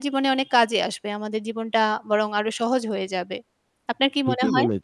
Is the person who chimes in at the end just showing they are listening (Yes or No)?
No